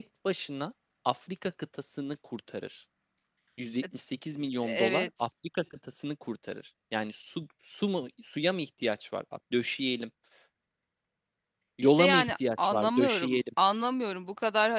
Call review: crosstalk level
present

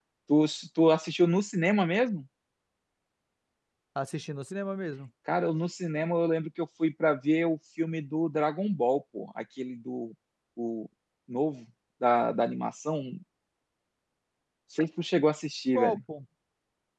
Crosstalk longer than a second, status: none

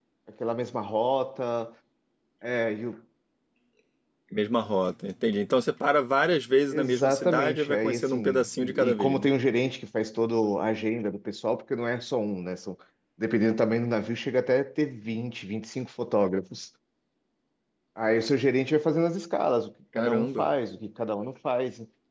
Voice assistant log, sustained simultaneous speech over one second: present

